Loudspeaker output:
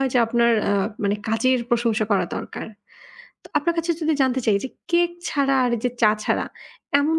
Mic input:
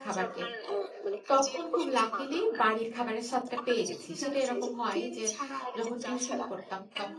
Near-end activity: present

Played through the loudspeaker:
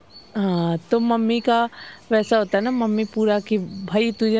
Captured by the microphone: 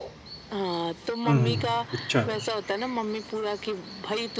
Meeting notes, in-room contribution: present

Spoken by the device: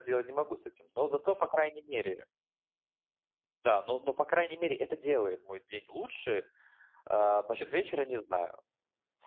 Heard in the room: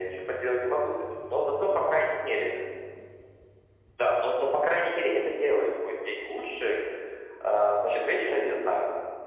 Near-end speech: none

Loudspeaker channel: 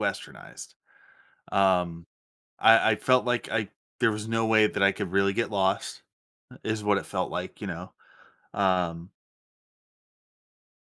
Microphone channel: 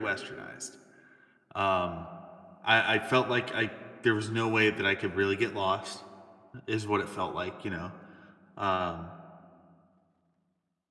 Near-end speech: none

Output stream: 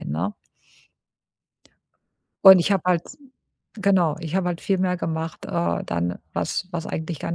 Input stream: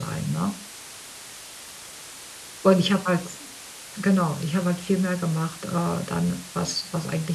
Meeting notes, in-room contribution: none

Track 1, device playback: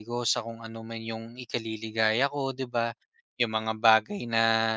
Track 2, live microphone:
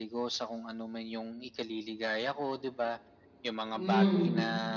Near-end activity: present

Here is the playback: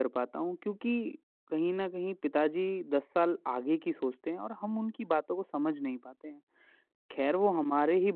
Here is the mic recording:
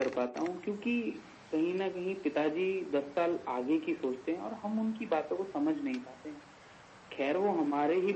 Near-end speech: none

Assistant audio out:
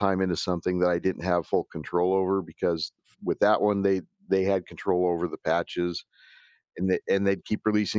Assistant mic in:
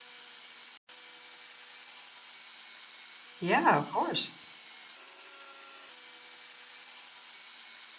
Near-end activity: present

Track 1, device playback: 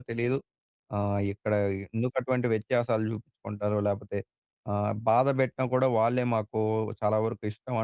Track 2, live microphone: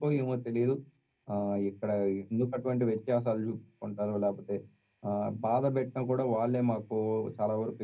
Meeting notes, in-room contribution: none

